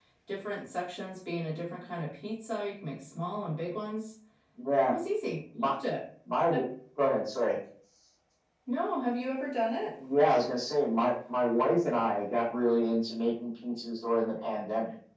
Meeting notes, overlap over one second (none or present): none